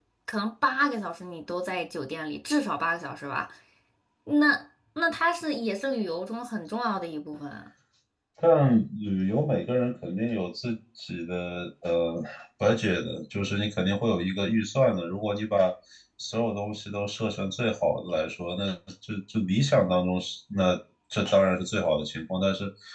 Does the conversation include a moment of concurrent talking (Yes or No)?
No